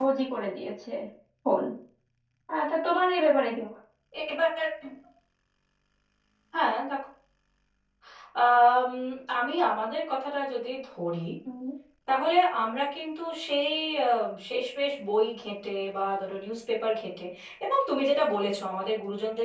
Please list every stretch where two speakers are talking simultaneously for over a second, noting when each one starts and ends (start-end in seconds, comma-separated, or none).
none